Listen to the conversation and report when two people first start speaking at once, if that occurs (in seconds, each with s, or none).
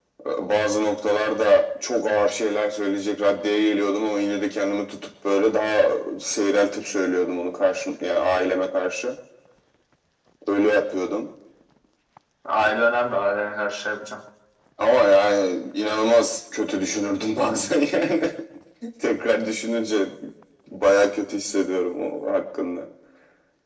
none